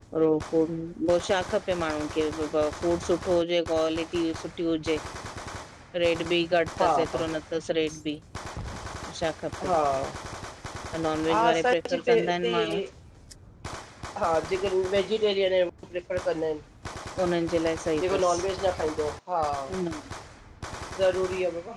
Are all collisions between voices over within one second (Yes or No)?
No